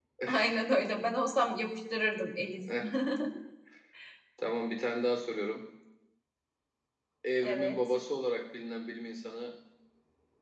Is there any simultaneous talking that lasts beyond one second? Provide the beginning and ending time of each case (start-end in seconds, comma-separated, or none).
none